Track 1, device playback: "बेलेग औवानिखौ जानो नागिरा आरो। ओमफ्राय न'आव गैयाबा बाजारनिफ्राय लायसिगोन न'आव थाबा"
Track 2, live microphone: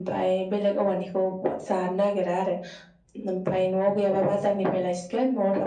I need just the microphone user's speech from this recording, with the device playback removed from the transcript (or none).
none